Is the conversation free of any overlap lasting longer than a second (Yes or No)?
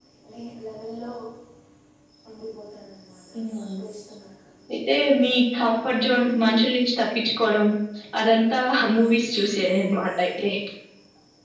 Yes